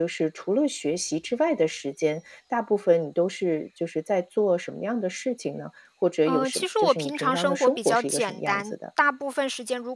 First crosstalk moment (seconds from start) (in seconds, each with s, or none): 6.2 s